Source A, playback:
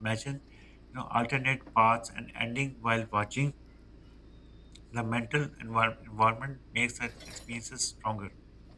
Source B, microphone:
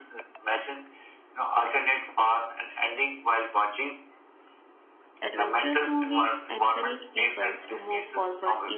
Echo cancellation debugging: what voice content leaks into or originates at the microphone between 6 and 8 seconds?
both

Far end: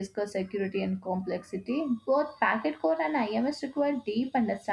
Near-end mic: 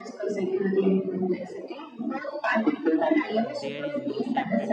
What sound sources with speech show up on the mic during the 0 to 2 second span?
echo only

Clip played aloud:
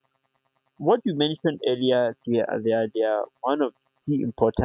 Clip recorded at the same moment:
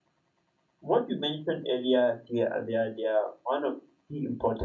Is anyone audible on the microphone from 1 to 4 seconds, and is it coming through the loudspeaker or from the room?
echo only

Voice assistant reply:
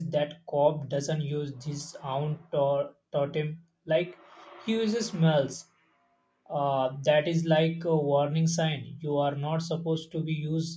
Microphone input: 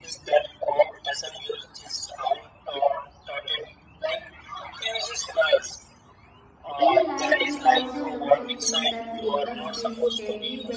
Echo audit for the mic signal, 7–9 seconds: both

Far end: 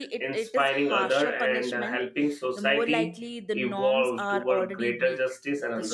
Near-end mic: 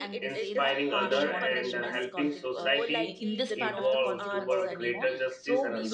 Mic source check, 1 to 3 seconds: both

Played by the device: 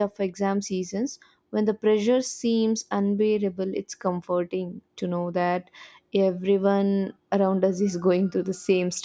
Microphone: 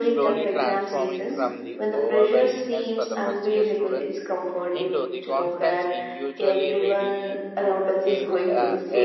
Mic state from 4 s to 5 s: both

